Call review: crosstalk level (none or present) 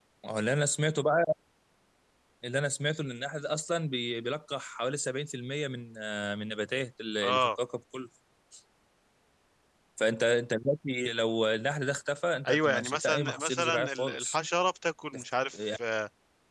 present